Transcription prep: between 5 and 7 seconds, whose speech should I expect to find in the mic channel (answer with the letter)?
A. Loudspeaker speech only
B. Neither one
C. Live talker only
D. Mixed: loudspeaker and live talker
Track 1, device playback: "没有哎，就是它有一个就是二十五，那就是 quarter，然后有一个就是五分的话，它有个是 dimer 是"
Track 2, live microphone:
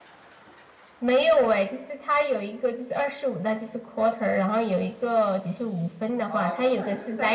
D